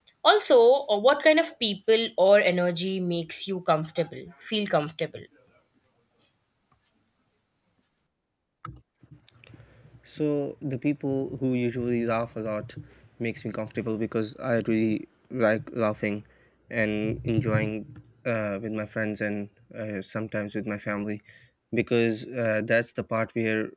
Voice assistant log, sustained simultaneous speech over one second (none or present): none